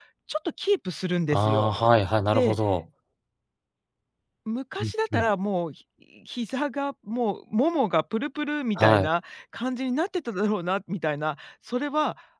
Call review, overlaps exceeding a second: none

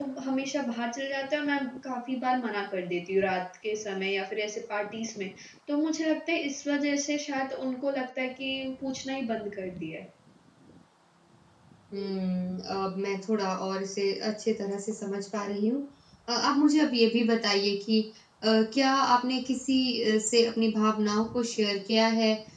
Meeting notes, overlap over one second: none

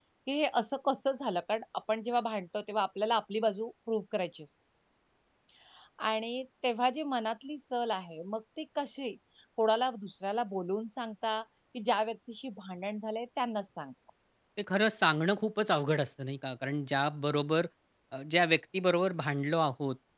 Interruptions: none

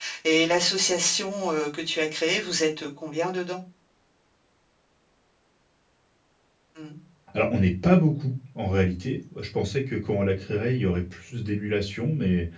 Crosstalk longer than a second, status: none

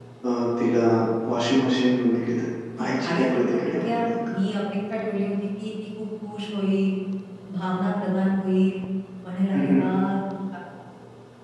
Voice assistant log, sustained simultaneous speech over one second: present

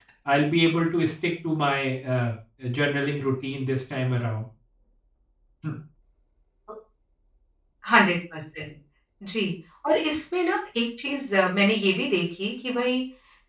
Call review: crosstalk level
none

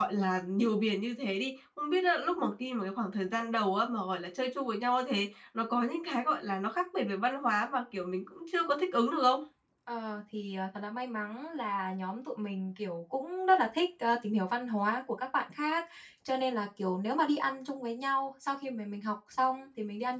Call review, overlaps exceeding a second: none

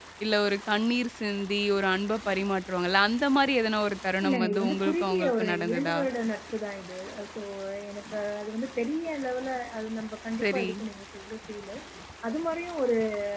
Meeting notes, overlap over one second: present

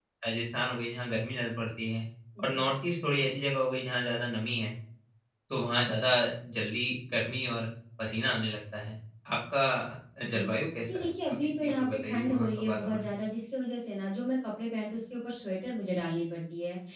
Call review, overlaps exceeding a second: present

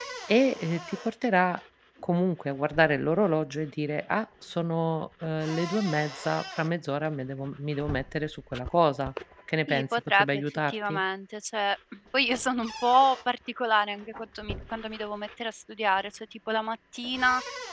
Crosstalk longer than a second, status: present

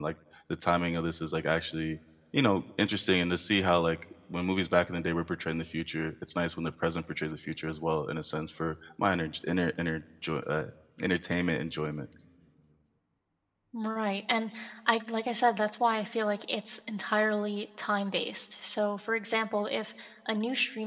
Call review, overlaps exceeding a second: none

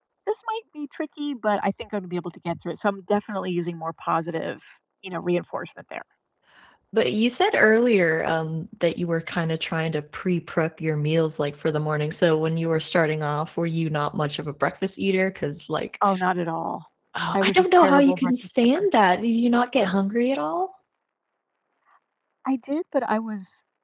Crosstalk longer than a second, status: present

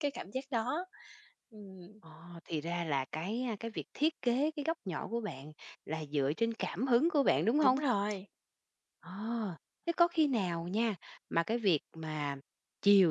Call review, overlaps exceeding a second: none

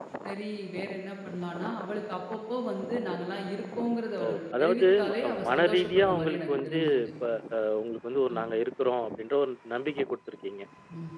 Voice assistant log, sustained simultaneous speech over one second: present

